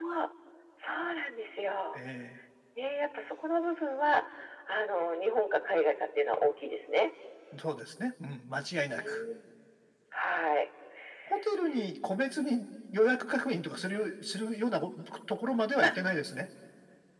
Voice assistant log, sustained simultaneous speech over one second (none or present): none